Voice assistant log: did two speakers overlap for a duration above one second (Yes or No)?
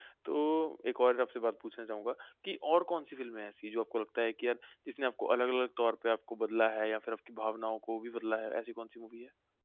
No